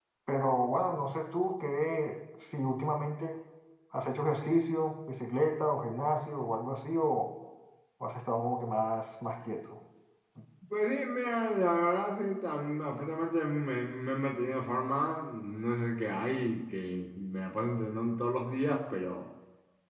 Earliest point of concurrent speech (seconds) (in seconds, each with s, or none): none